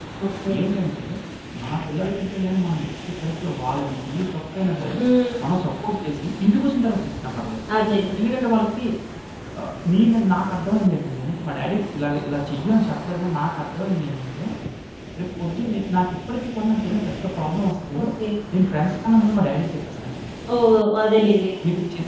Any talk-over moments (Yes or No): No